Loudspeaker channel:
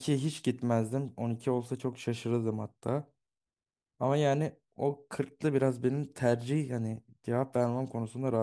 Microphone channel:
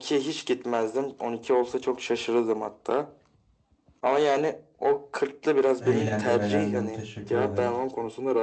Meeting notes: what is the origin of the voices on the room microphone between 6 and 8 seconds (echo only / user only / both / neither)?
both